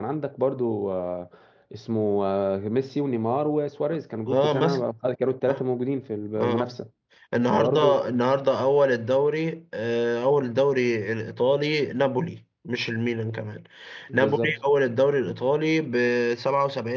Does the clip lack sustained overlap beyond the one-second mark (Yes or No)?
Yes